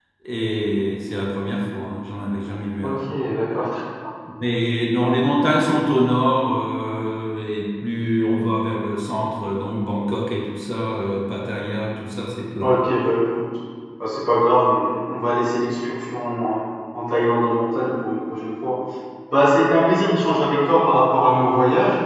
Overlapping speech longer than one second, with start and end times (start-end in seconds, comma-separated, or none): none